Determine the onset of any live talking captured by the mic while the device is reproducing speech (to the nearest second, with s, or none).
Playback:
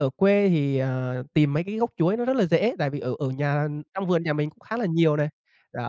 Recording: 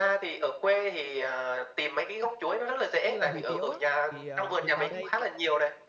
3 s